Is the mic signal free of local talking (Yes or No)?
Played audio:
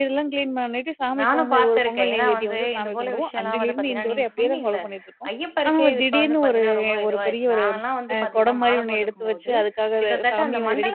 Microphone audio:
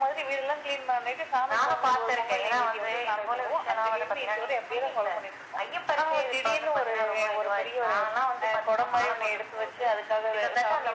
Yes